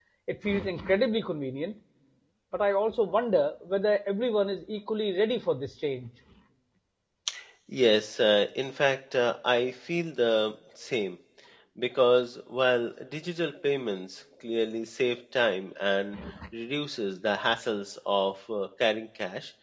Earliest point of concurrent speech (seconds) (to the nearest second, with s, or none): none